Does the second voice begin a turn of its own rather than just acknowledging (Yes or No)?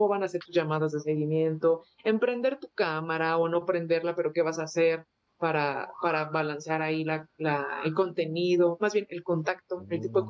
No